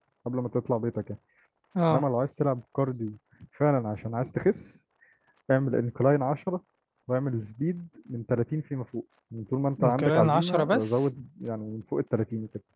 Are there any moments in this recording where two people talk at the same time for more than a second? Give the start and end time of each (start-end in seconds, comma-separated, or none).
9.8-11.1